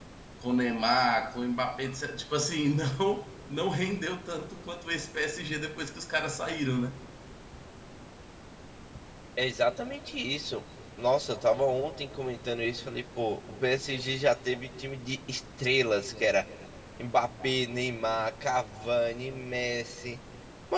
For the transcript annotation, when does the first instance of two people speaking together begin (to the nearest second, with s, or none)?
none